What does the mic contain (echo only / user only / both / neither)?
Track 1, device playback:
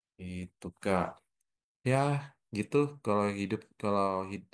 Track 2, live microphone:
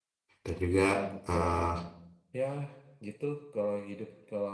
both